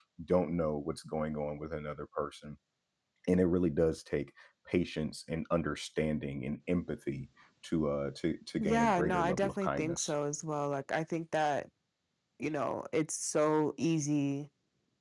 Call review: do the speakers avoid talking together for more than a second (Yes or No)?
No